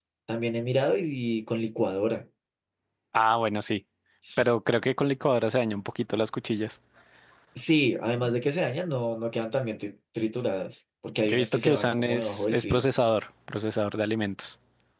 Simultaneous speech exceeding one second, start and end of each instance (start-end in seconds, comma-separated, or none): 11.2-12.8